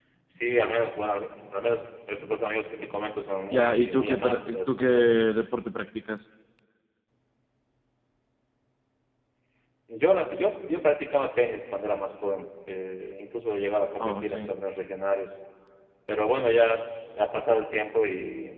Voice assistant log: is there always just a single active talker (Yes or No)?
No